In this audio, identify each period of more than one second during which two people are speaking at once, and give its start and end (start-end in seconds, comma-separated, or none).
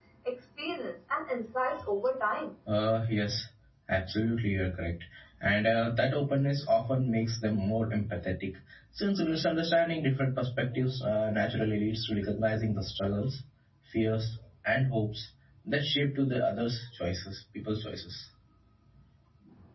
none